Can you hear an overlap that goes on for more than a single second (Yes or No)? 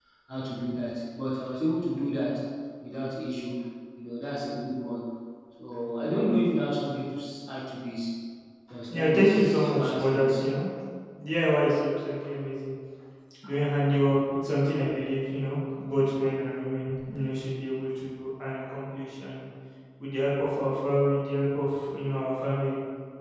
Yes